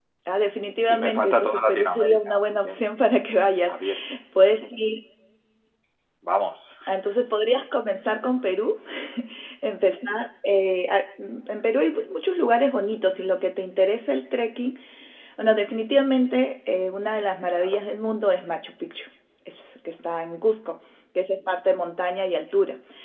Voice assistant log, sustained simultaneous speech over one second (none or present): present